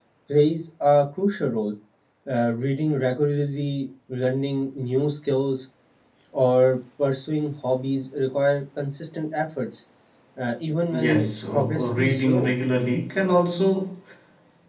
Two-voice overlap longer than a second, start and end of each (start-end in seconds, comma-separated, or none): 10.9-12.5